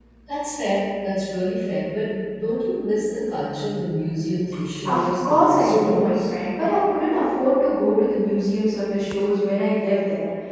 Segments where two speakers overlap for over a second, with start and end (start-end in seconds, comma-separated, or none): 4.8-6.2